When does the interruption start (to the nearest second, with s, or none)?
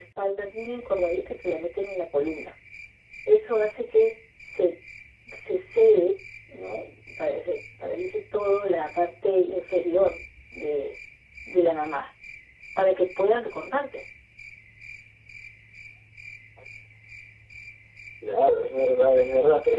none